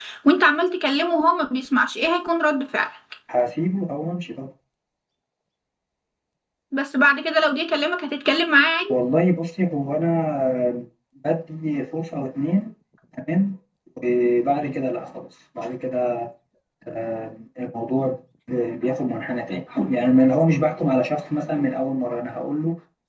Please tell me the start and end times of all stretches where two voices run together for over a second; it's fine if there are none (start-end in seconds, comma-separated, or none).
none